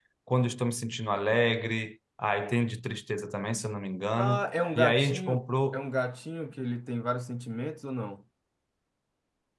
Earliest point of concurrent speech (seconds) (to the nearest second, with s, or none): 4 s